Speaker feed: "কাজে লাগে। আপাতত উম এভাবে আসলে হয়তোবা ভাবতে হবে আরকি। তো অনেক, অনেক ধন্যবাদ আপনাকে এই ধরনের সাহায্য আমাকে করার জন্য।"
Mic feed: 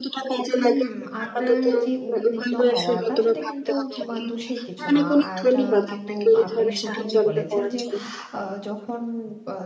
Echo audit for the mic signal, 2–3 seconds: both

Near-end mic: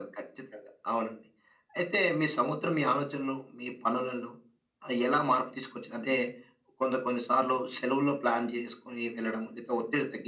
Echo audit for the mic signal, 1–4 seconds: echo only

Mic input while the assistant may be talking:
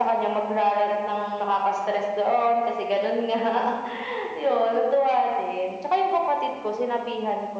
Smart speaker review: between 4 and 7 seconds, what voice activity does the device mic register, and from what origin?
echo only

